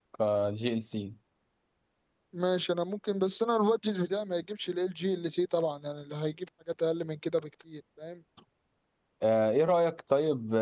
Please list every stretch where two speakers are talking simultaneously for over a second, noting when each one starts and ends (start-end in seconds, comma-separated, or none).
none